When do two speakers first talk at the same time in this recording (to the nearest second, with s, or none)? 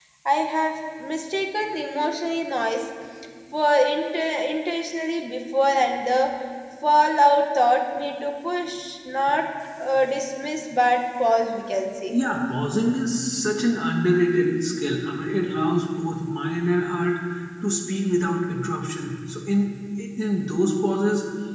none